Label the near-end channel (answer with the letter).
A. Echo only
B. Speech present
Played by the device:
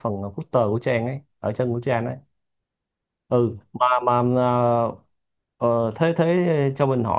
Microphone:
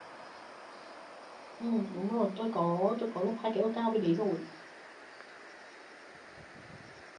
B